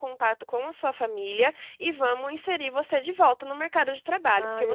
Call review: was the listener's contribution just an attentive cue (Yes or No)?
No